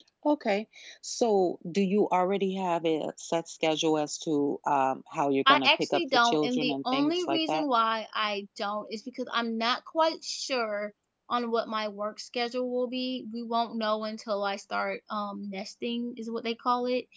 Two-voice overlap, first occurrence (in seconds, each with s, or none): 5.5 s